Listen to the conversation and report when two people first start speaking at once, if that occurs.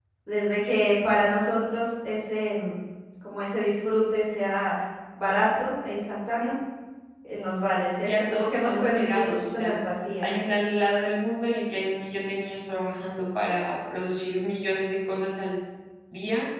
8.0 s

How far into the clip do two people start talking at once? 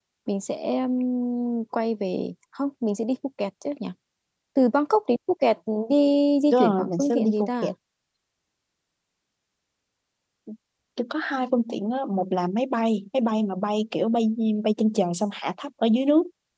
6.5 s

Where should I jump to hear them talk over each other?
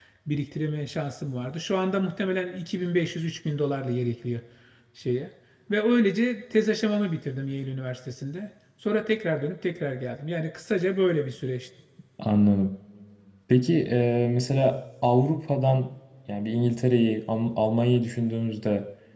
none

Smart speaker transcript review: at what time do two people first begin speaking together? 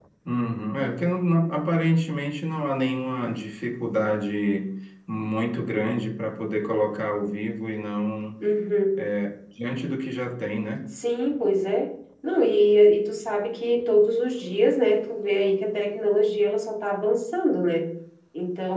none

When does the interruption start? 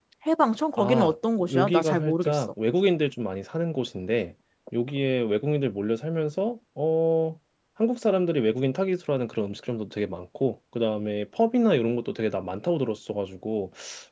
0.8 s

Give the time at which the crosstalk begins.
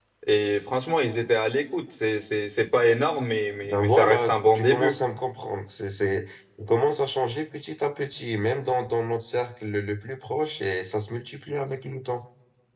3.6 s

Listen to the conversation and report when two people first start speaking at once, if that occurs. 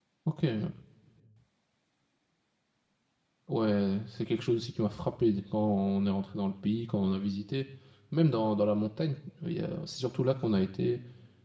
none

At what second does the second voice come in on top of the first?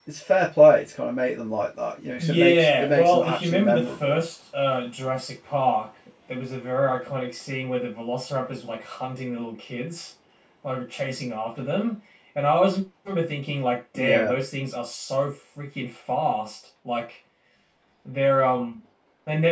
2.2 s

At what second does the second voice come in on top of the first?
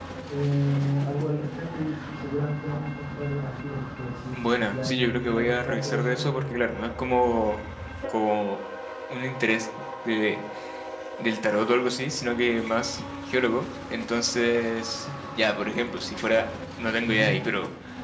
4.3 s

